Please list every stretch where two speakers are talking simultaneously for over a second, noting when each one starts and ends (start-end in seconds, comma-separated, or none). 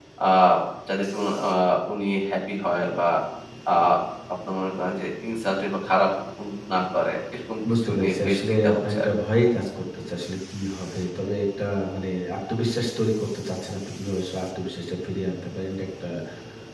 7.8-9.1